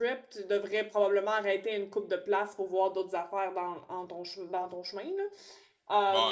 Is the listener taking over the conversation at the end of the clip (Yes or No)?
Yes